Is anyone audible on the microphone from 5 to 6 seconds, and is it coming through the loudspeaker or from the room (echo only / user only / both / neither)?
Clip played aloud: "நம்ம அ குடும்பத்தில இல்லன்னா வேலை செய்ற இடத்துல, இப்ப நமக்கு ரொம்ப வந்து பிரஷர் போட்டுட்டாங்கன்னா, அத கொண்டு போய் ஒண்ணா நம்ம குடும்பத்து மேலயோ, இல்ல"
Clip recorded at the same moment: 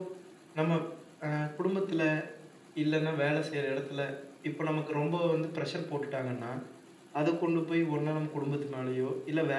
echo only